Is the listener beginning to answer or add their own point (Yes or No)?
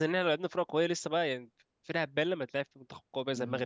Yes